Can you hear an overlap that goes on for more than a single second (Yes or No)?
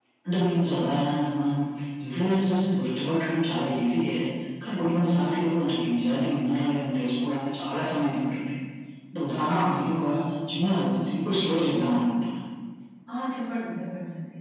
No